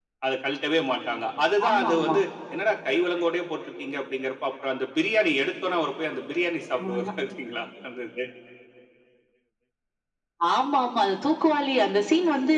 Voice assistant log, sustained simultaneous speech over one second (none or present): none